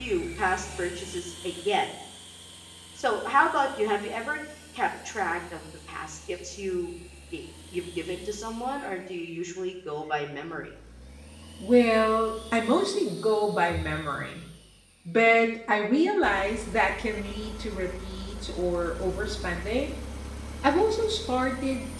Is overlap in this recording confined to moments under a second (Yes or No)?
Yes